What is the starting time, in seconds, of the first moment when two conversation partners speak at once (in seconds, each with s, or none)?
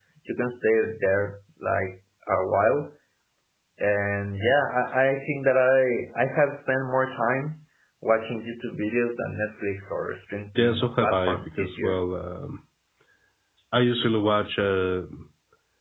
10.6 s